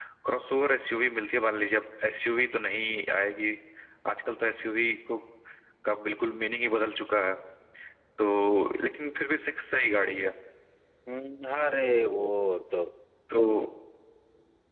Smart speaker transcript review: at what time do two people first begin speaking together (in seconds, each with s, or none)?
none